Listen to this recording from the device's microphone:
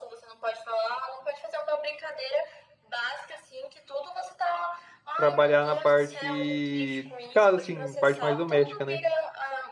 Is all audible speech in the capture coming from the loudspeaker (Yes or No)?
No